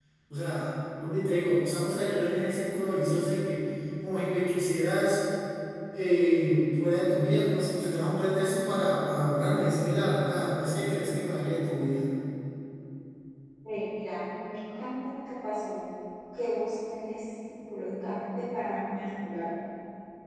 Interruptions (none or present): none